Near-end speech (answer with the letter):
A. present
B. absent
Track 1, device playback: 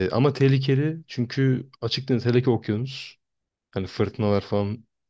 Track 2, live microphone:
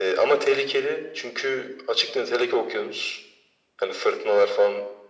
B